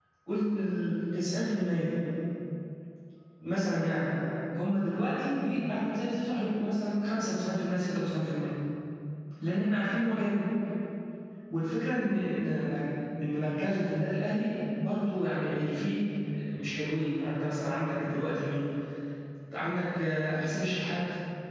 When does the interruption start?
none

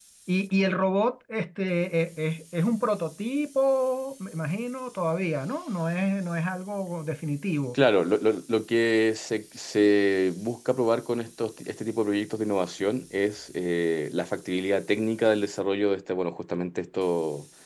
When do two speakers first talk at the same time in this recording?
none

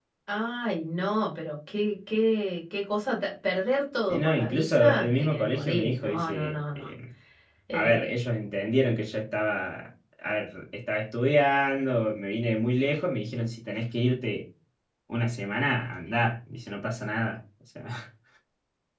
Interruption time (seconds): 4.1 s

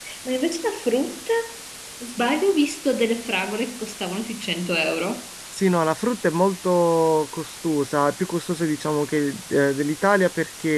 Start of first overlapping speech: none

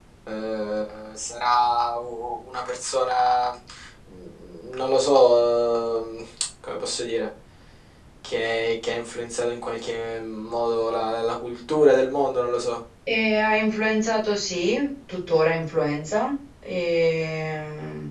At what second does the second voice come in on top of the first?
none

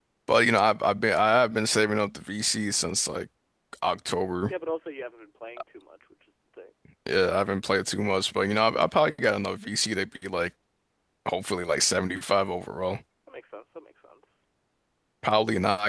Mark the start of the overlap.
none

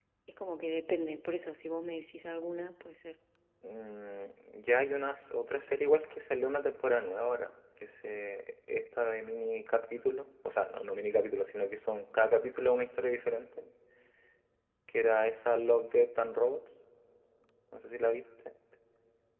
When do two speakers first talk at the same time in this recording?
none

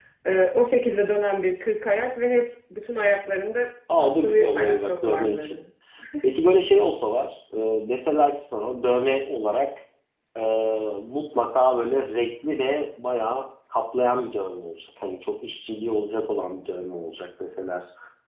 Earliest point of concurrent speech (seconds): 3.9 s

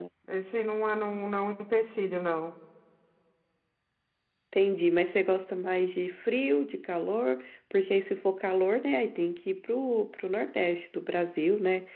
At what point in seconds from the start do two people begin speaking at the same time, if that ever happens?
none

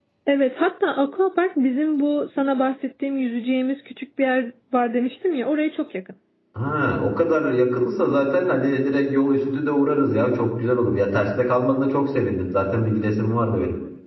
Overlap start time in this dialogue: none

